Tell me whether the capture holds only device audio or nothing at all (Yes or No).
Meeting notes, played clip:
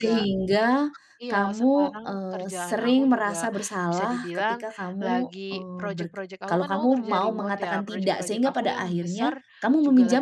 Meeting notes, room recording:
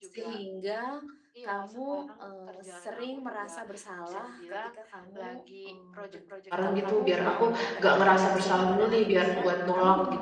No